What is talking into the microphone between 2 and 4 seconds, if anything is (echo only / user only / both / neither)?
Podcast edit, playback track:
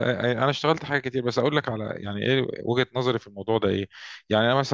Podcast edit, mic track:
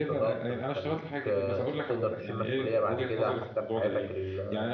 both